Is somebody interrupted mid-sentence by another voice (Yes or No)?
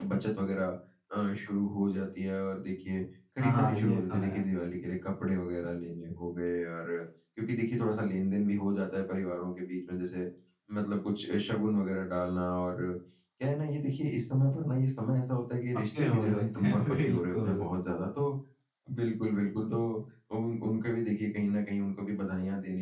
Yes